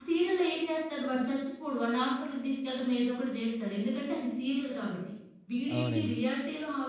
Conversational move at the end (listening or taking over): listening